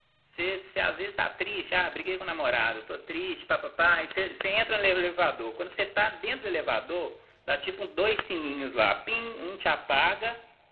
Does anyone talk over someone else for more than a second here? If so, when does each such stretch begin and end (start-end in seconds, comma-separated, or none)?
none